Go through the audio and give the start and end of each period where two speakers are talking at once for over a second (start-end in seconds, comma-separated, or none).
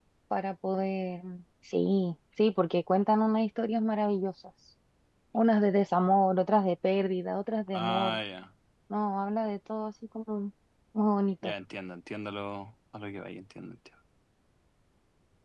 none